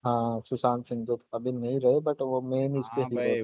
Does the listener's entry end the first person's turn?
Yes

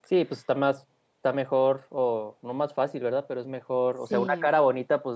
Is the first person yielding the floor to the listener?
No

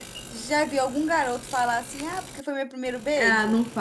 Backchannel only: No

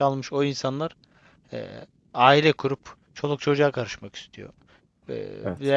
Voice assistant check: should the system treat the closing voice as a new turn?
No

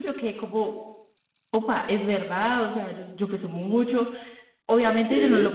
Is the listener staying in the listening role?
Yes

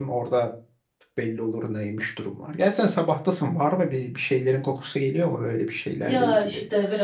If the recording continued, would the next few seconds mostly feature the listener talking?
Yes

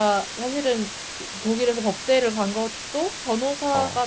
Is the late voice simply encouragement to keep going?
Yes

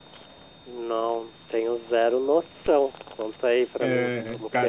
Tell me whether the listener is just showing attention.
No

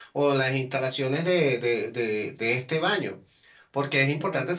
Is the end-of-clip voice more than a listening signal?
No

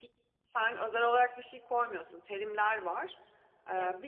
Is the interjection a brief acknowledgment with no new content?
Yes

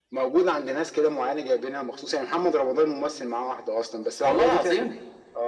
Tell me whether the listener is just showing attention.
Yes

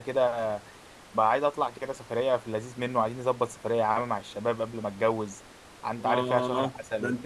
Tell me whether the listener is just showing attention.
No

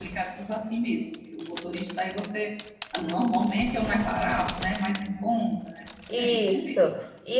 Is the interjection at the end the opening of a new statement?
Yes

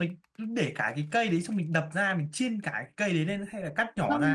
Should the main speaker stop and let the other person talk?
Yes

